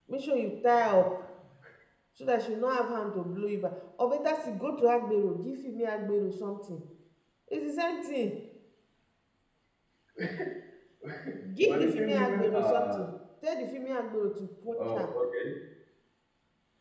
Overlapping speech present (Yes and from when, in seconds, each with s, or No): Yes, from 11.6 s